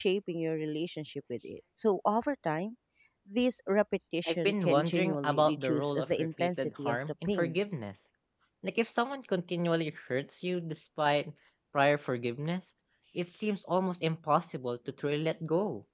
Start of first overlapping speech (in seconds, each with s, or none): 4.2 s